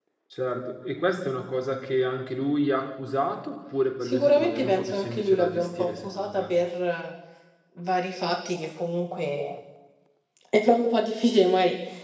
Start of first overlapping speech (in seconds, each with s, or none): 4.0 s